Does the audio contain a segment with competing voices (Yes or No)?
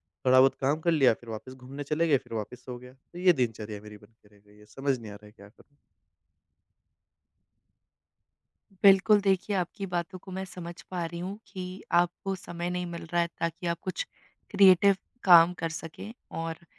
No